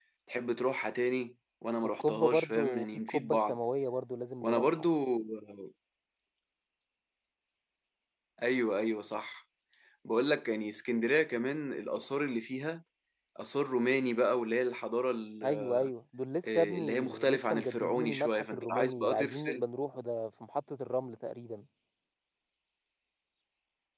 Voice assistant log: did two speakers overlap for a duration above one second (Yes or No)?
Yes